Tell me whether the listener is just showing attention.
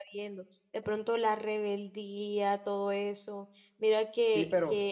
Yes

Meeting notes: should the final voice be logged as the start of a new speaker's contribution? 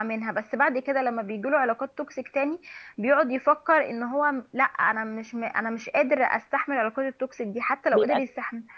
No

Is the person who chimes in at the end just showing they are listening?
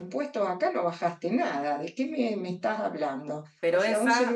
Yes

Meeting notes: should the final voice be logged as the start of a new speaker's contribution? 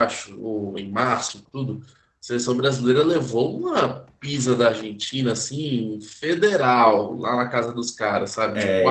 Yes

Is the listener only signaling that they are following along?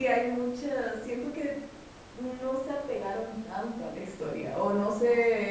Yes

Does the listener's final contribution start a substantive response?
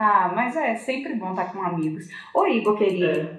No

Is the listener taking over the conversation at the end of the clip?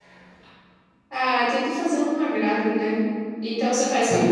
No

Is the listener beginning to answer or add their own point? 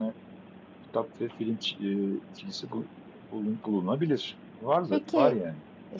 Yes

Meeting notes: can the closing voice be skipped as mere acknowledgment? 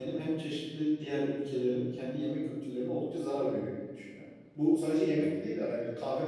Yes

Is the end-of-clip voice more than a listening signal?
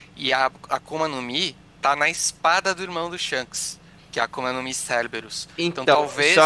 No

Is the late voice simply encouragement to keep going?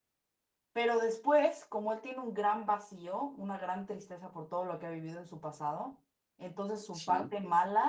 Yes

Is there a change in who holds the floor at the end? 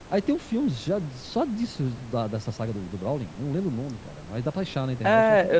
Yes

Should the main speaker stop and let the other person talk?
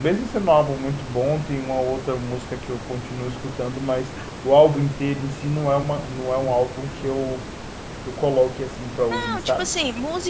Yes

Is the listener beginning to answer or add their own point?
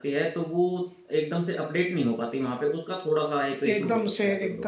Yes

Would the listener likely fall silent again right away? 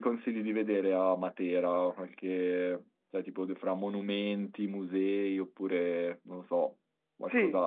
No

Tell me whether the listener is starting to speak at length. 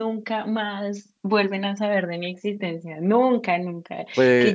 No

